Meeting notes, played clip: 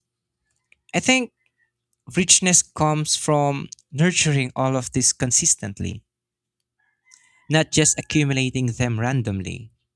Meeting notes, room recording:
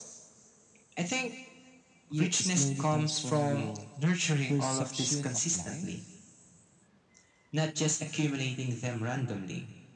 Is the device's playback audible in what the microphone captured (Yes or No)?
Yes